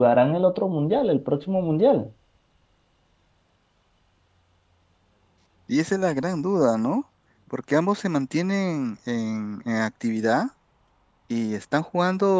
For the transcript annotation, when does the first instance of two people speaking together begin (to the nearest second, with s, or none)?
none